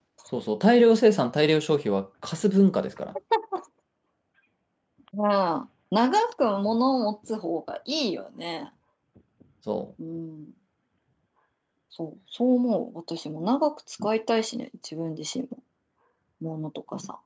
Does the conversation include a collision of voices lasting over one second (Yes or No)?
No